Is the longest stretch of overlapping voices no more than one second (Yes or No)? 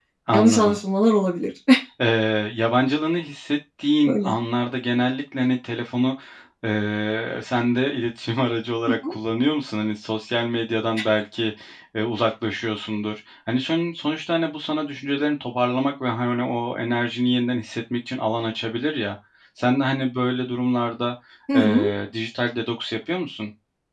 Yes